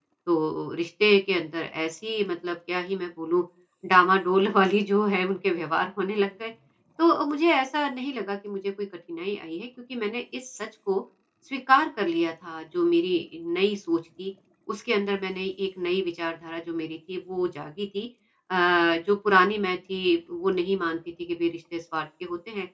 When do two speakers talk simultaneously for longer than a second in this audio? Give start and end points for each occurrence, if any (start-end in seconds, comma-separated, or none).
none